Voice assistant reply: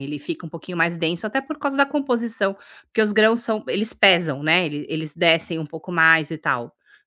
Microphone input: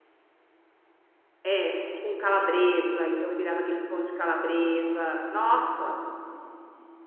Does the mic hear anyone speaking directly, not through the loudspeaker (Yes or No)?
Yes